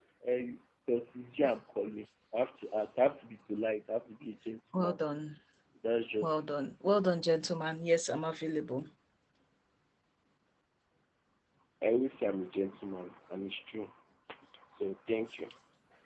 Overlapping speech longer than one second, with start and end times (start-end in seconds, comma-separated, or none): none